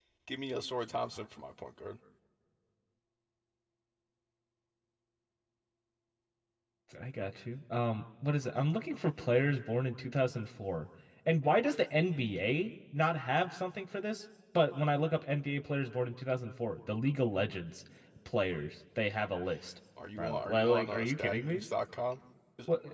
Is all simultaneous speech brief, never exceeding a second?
No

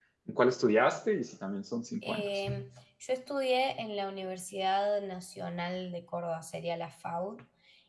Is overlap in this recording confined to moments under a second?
Yes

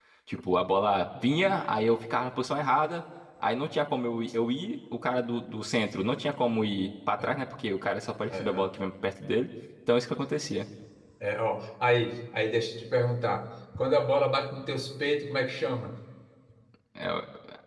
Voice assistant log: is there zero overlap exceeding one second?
Yes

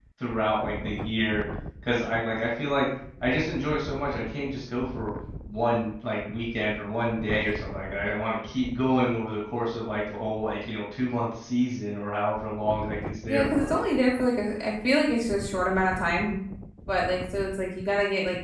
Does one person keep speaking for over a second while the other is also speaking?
No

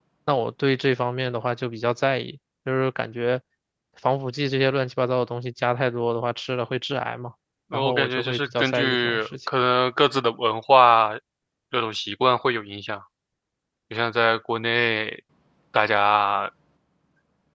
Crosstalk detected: Yes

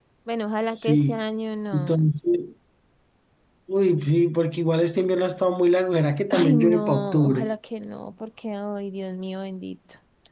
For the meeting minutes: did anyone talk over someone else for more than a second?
Yes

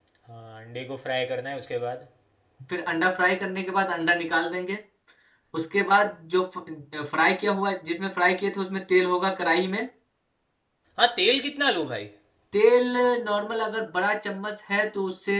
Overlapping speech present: No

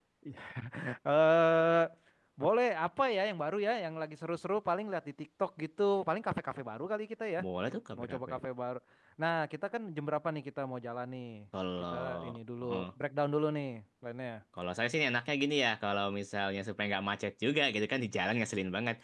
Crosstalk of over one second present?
No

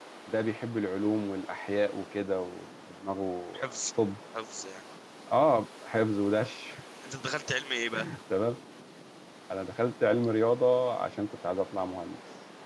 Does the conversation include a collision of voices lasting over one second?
No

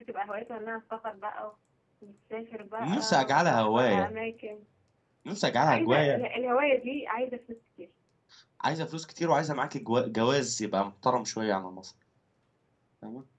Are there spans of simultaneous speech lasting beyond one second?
Yes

